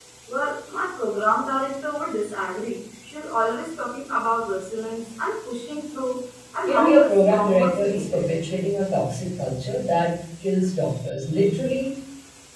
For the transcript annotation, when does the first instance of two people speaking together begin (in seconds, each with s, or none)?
6.6 s